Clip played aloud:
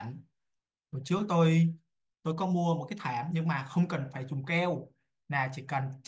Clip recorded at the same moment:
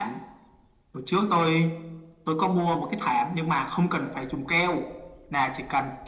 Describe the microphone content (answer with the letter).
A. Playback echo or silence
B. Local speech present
A